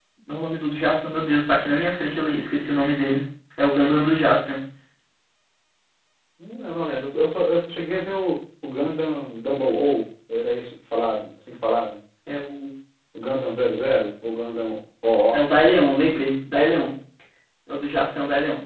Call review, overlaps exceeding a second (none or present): none